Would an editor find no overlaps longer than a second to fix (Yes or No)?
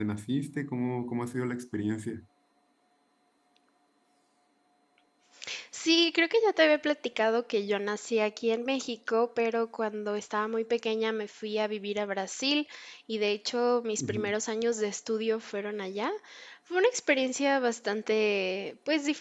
Yes